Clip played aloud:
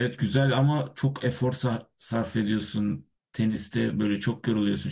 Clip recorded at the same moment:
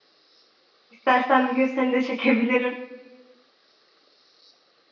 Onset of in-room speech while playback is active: 0.9 s

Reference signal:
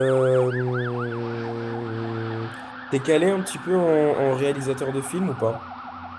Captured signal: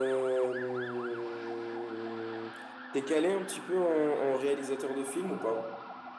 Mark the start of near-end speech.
none

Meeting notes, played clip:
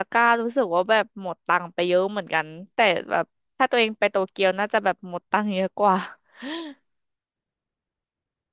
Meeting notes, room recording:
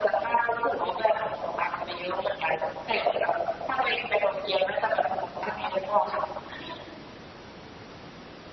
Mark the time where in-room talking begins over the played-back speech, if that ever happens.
none

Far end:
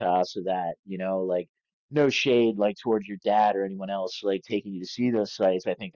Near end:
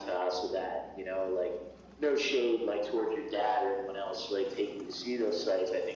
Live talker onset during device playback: none

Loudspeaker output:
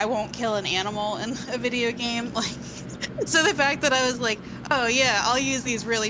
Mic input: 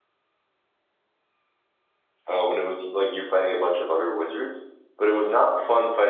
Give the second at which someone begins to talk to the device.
2.3 s

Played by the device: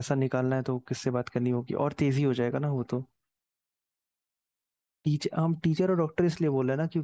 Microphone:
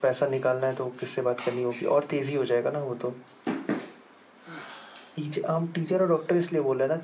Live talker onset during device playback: none

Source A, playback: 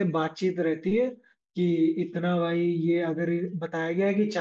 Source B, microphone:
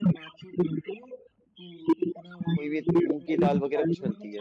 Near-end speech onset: 2.5 s

